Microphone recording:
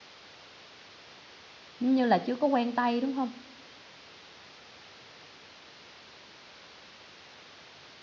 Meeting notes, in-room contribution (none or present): present